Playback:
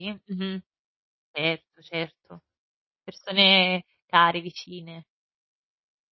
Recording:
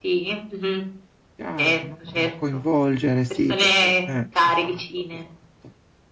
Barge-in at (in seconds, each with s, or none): 1.4 s